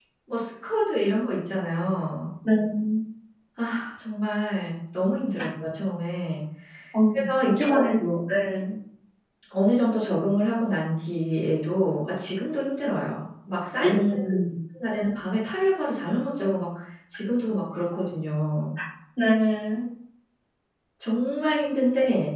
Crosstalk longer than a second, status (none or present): none